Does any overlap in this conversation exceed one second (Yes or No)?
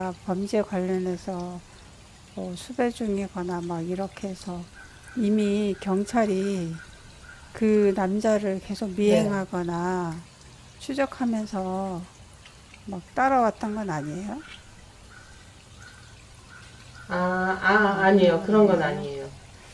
Yes